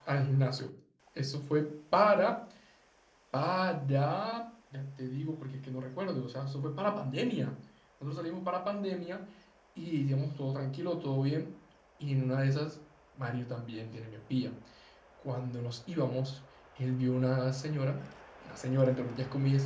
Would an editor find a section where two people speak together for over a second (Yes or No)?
No